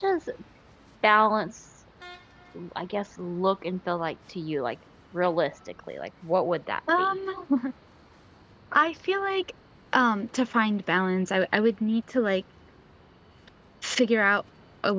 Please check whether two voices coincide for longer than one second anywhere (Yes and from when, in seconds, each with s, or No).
No